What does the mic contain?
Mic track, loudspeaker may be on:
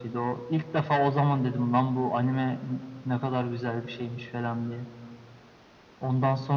echo only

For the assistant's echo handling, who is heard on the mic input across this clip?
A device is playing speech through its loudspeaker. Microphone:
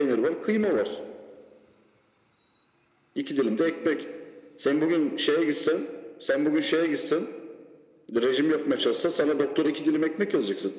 echo only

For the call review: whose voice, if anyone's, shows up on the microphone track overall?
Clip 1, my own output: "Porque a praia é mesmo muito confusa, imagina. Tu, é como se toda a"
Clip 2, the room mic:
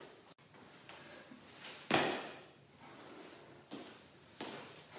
neither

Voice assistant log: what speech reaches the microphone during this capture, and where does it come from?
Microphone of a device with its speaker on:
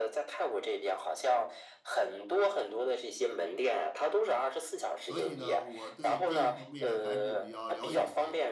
both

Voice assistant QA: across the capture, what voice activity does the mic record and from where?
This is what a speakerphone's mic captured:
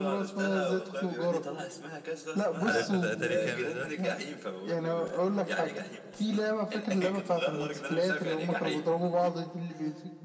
both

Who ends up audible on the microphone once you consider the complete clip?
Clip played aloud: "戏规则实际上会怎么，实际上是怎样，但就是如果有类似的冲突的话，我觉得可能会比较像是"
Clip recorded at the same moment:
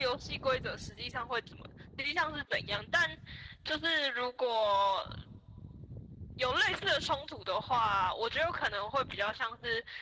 echo only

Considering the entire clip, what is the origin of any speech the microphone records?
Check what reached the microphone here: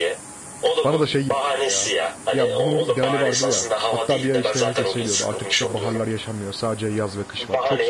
both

